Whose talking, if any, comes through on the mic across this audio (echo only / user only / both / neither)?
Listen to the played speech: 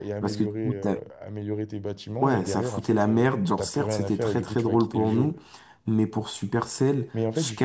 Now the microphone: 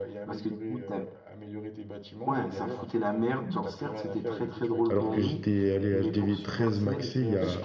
both